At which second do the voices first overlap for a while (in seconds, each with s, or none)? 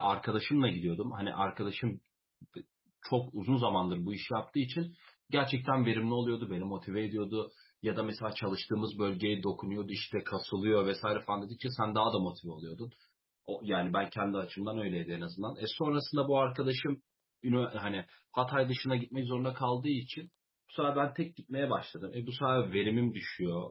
none